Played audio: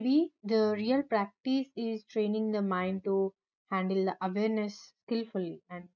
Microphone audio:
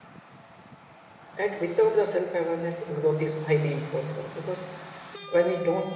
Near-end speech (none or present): present